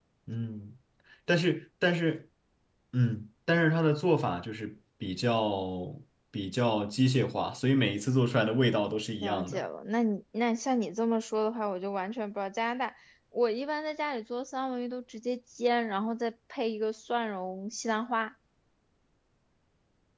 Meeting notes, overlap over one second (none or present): none